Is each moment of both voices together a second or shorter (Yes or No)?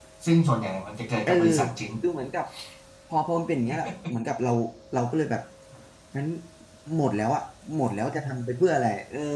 Yes